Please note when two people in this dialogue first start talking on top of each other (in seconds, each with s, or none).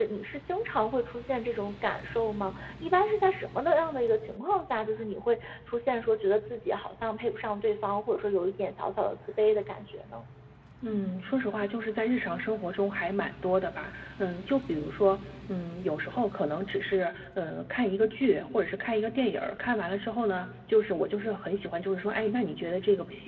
none